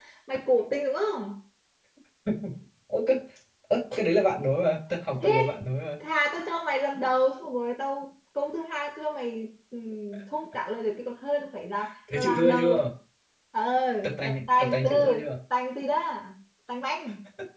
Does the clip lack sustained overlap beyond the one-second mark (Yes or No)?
No